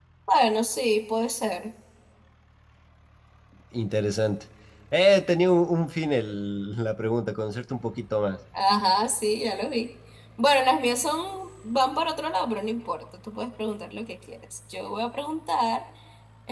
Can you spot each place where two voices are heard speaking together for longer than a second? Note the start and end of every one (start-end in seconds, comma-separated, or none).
none